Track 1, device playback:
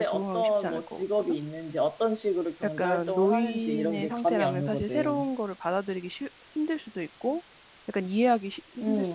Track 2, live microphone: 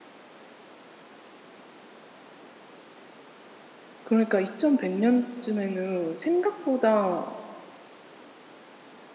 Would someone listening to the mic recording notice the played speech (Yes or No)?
No